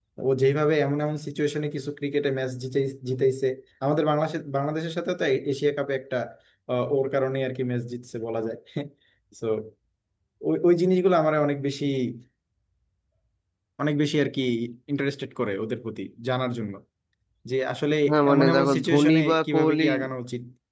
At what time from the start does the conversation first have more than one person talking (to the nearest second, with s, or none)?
18 s